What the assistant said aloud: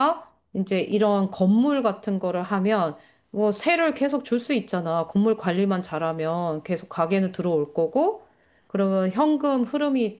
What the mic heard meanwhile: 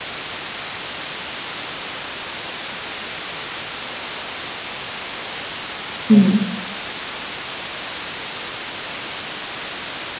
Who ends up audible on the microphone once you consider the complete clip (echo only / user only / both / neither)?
user only